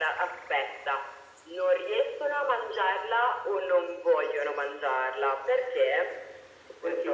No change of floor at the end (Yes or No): Yes